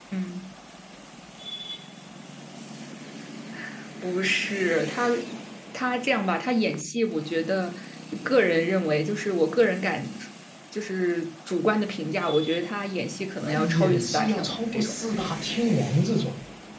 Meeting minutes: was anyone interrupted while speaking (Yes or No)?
Yes